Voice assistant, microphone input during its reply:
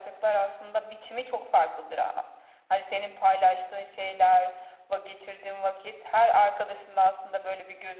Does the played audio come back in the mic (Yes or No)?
Yes